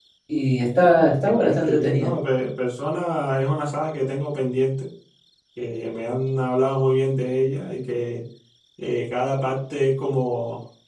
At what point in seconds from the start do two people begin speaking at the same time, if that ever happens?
0.8 s

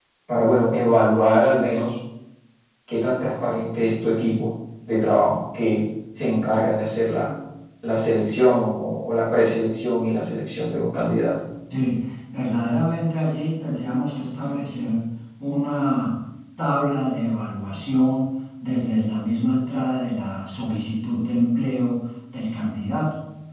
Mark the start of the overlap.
none

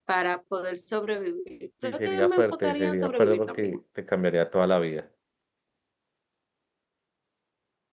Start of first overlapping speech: 1.8 s

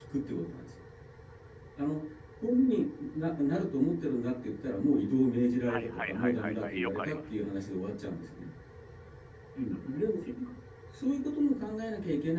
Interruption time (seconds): 5.7 s

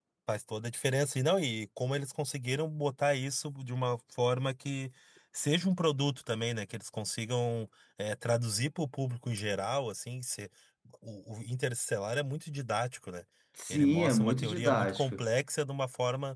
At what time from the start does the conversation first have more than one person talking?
13.7 s

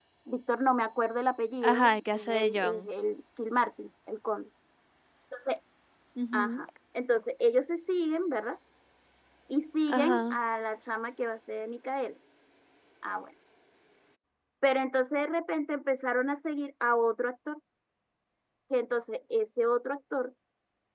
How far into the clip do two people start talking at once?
1.6 s

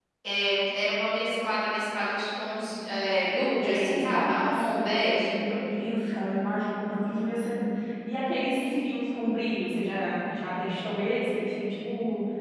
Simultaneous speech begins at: 3.6 s

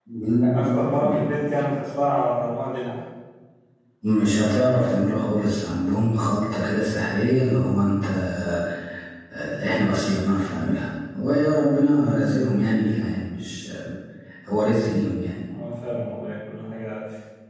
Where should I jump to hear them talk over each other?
none

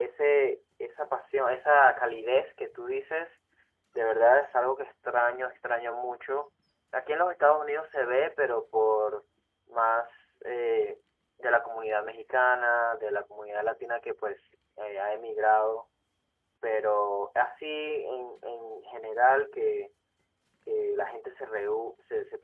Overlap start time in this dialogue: none

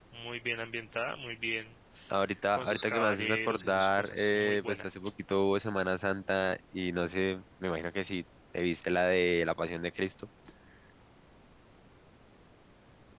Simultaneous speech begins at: 2.5 s

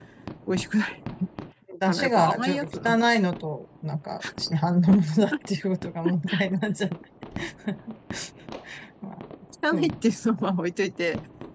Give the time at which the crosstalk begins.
1.8 s

